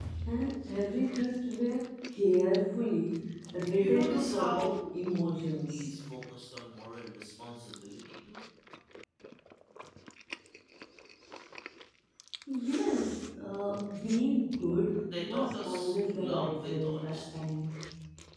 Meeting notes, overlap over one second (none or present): present